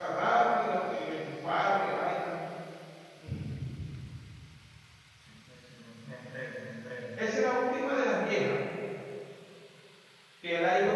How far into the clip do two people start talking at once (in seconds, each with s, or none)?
none